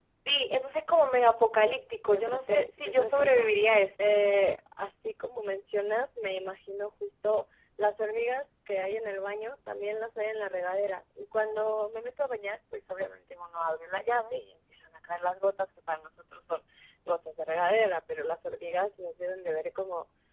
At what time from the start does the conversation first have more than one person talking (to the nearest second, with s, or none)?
2 s